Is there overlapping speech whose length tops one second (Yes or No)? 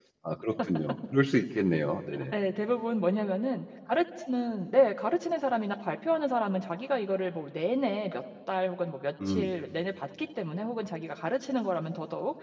No